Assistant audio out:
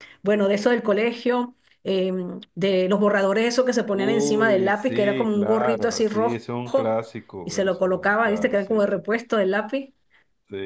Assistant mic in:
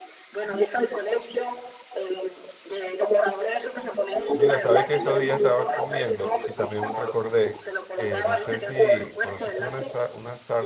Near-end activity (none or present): present